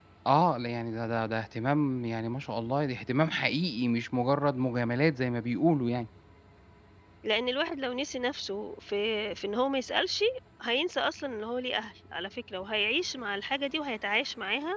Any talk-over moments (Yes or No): No